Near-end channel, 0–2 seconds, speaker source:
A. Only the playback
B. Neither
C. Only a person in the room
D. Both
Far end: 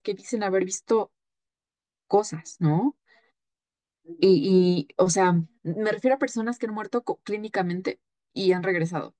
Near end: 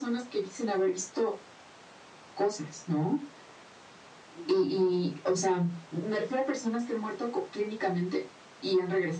A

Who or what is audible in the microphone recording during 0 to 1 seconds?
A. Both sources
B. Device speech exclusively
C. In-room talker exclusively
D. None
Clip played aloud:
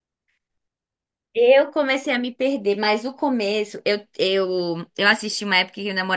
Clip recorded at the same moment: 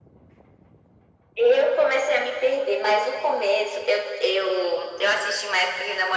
D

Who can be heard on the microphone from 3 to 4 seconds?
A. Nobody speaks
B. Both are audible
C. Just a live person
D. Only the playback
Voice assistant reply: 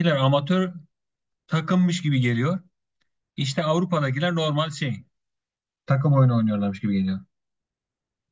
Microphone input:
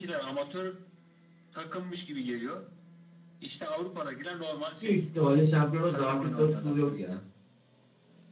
D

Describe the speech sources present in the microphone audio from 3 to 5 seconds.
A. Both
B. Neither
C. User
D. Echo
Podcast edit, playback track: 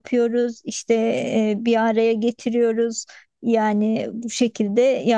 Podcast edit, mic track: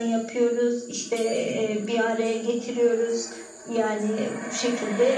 D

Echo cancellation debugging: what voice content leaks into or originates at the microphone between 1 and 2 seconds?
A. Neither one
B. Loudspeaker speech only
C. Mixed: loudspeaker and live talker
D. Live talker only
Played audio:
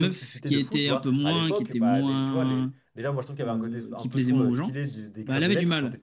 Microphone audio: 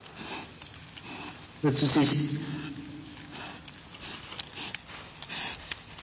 D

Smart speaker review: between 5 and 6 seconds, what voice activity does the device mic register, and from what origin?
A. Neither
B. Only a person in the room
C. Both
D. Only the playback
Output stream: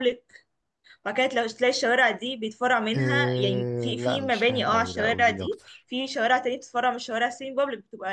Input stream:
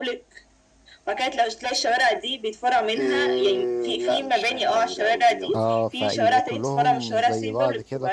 C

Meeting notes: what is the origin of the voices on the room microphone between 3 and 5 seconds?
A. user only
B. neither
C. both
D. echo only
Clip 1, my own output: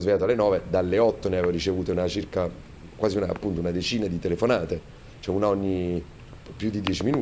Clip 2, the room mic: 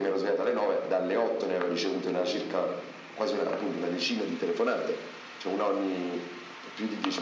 D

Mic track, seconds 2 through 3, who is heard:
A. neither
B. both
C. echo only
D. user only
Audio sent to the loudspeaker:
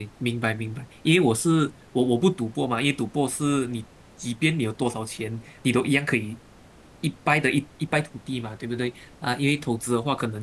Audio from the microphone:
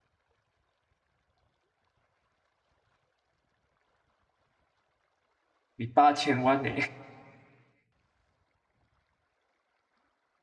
A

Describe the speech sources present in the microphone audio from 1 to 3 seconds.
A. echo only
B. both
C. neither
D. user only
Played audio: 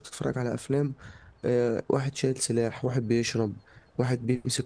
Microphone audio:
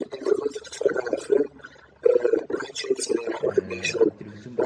A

